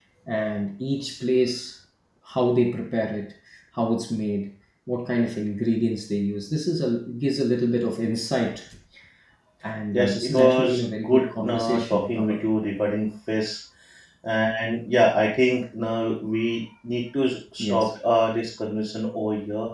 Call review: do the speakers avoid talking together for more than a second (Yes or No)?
No